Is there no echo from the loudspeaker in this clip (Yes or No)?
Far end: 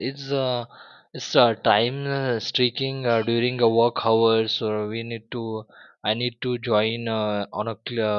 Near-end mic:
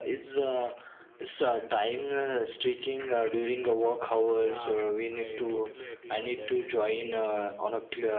No